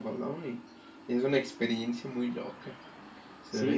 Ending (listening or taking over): taking over